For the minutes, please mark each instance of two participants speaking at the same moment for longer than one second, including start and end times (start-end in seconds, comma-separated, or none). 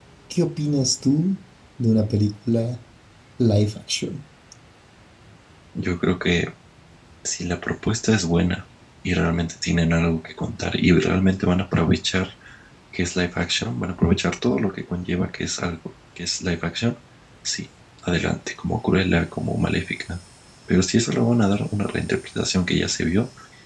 none